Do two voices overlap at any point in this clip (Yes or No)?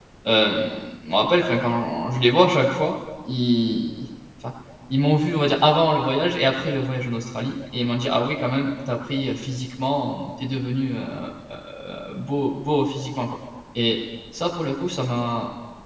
No